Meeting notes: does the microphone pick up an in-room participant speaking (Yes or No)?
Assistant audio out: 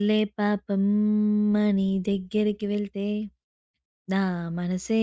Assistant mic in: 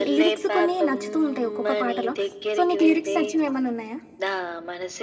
Yes